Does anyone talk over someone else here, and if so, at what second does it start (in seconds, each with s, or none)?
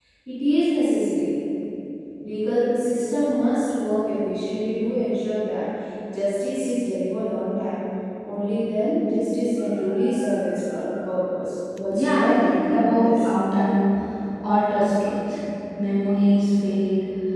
11.8 s